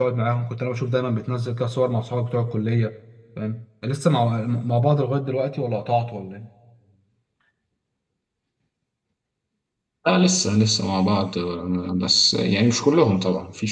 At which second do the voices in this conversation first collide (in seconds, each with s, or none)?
none